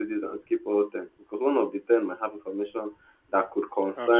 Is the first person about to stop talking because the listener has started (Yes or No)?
No